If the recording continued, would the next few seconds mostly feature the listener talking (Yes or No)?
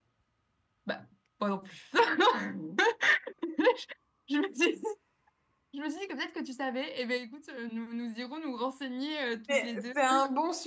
Yes